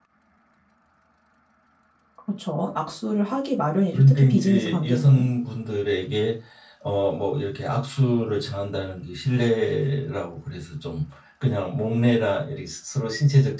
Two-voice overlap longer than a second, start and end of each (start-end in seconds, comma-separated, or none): 3.9-5.2